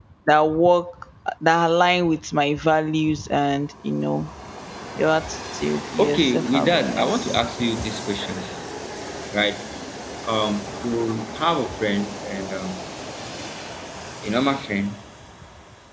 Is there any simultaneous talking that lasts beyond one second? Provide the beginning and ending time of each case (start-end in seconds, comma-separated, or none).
6.0-7.4